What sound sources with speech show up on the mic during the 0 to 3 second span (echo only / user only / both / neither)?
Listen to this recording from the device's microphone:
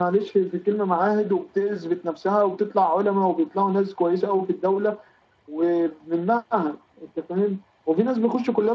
echo only